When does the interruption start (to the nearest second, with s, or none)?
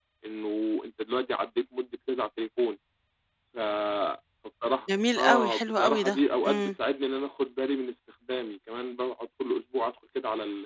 5 s